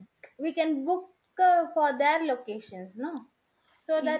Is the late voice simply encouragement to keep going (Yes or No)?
Yes